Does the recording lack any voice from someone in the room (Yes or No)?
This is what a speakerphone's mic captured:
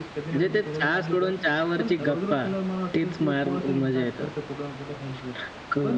No